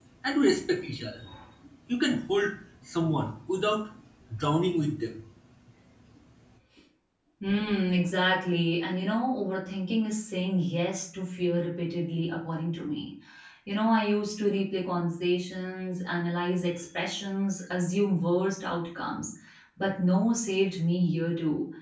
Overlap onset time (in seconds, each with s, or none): none